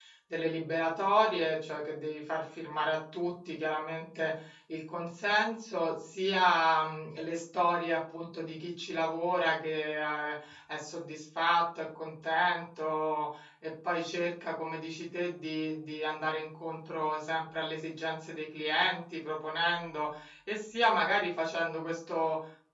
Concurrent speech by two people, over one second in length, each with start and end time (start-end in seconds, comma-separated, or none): none